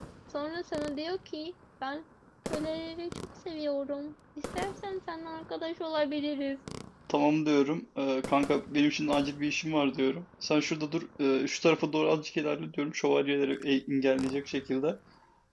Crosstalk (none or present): none